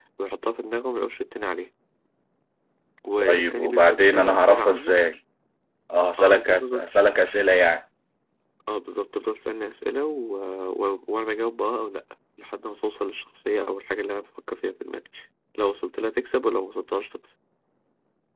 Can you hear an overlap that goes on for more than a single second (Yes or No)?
Yes